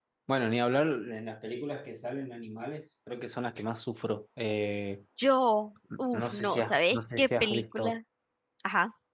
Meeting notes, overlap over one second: present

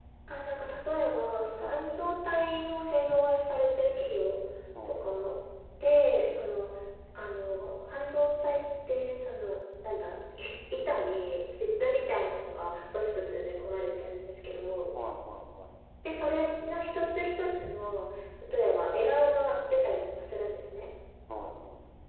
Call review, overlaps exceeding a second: none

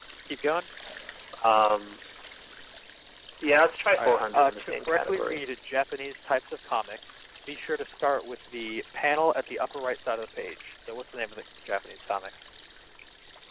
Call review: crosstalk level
present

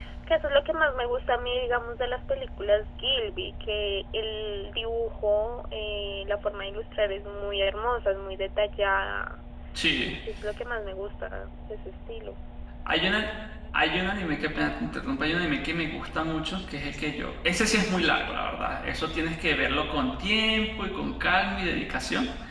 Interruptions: none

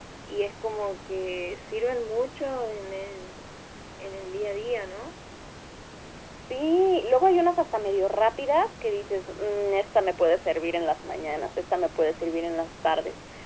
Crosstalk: none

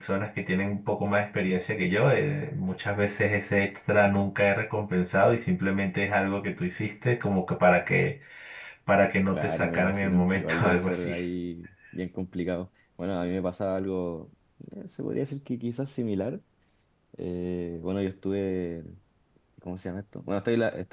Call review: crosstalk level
present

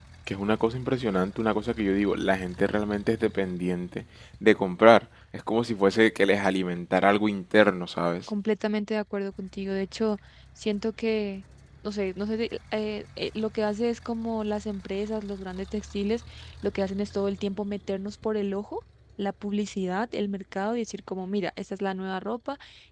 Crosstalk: none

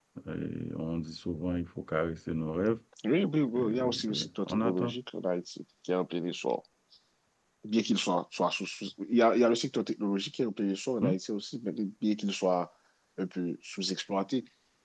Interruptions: present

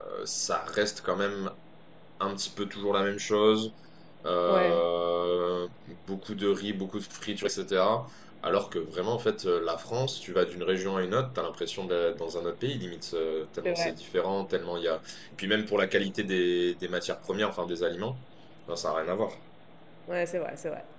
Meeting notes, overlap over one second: none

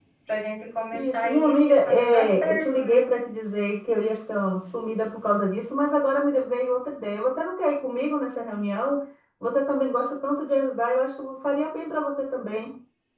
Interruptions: present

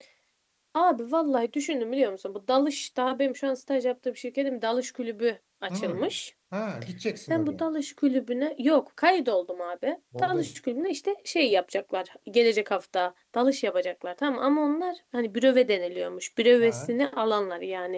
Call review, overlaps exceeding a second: none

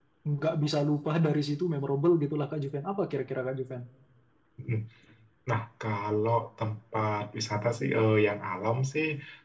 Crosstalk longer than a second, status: none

